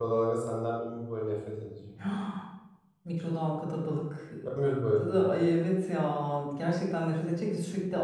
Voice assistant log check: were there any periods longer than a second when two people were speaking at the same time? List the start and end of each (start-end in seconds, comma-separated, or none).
none